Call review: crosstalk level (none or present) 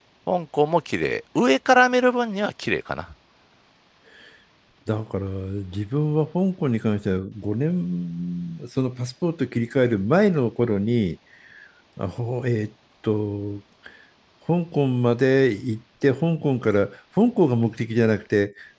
none